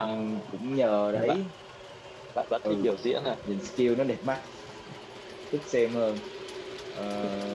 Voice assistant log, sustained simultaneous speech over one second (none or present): none